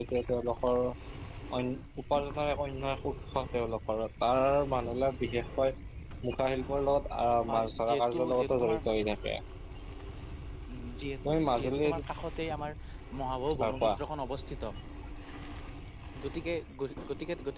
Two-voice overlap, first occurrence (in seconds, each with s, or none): 7.5 s